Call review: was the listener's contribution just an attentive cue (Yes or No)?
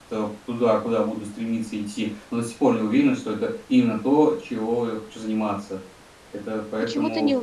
No